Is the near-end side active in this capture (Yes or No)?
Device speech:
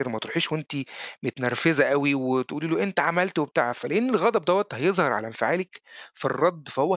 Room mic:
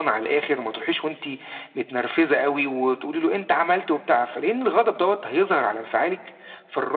No